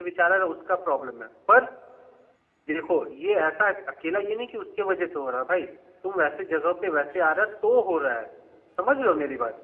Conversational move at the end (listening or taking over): taking over